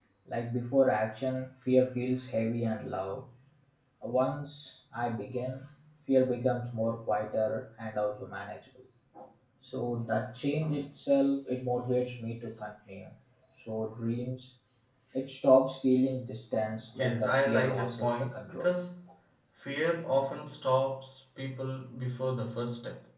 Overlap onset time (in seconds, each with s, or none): 17.0 s